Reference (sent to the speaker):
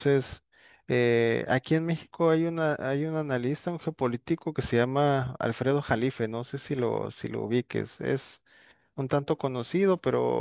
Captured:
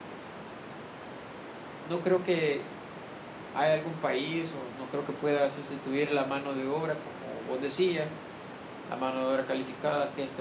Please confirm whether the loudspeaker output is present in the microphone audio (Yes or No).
No